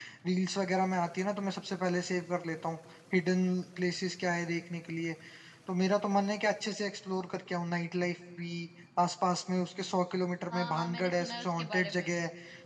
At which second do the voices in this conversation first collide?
10 s

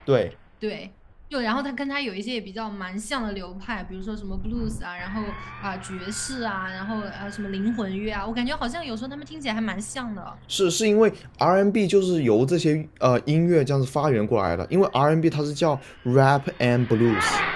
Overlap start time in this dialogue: none

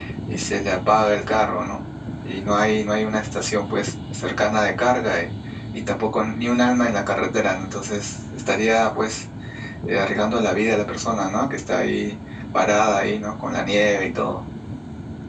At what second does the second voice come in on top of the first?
none

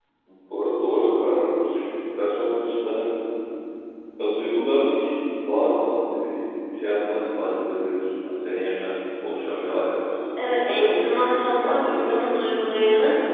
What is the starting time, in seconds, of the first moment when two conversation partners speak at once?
10 s

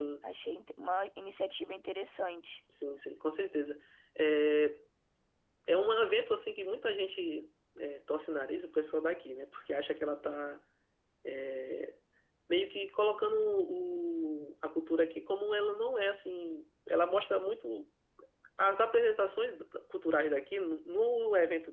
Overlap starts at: none

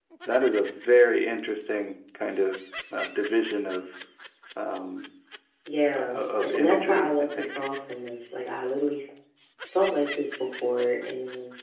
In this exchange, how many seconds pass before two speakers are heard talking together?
6 s

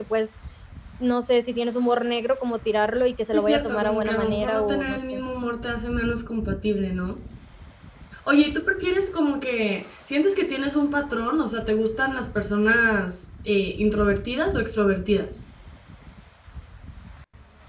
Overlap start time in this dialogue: 3 s

